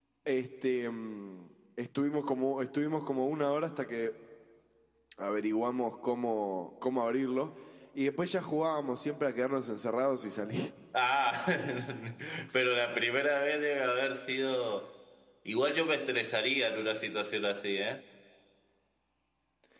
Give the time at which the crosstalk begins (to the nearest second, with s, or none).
none